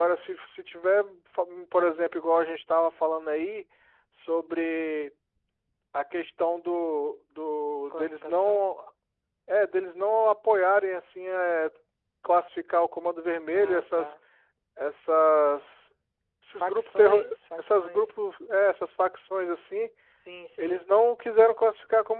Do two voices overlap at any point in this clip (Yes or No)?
Yes